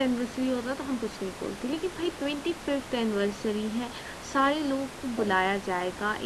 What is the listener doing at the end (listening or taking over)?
listening